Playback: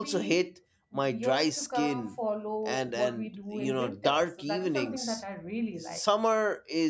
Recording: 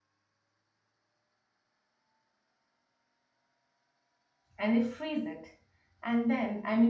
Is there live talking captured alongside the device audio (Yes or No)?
Yes